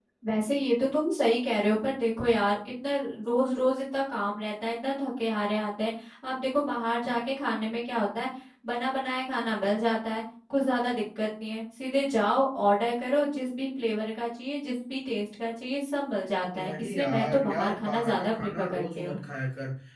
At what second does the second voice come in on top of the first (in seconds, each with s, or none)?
16.5 s